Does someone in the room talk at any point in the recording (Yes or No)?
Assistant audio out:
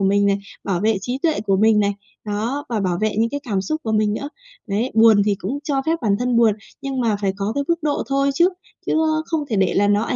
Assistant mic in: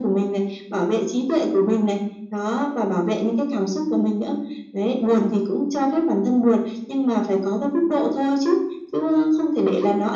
No